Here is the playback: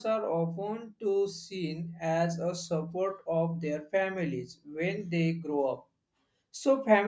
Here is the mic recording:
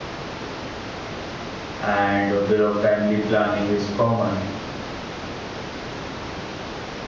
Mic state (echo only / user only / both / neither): user only